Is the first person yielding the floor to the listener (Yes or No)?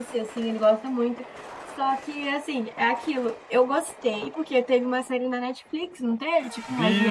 Yes